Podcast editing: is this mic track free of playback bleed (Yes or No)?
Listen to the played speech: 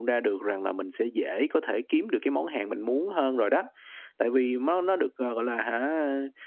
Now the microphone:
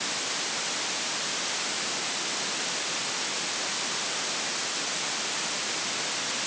Yes